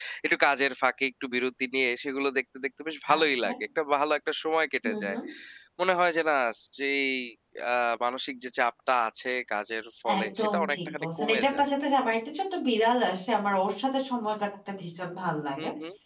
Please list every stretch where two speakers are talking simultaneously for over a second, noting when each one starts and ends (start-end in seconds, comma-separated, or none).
10.2-11.7